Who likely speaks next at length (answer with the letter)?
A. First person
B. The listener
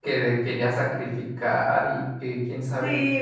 B